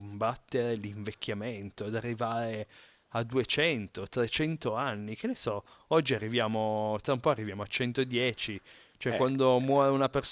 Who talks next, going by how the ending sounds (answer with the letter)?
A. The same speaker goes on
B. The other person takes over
A